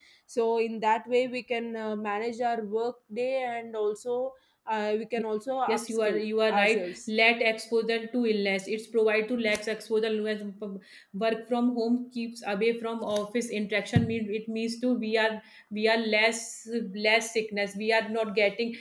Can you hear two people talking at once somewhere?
Yes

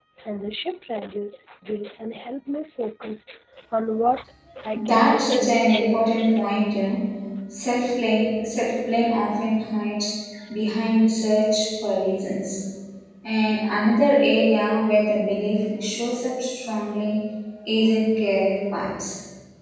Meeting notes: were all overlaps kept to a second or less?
No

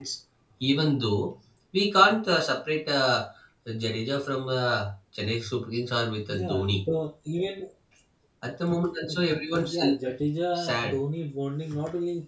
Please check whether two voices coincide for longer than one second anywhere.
No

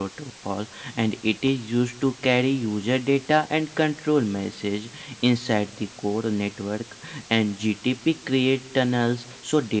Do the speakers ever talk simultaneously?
No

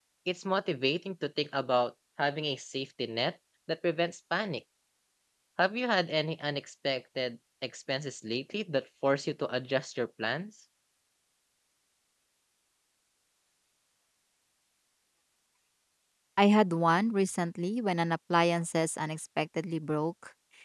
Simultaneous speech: No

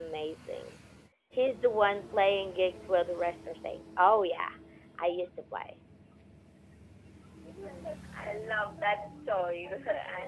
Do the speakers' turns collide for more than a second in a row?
No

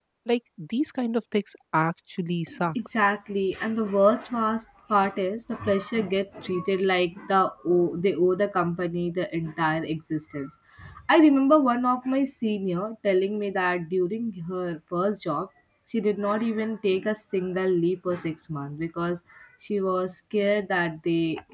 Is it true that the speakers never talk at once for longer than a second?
Yes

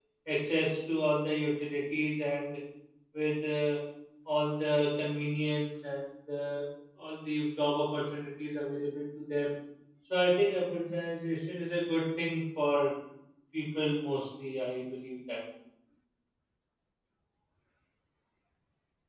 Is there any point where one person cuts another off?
No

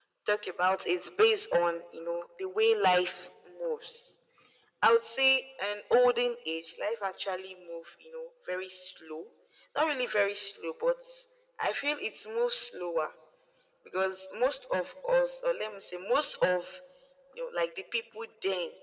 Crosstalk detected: No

